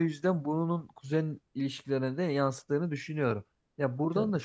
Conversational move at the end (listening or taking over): listening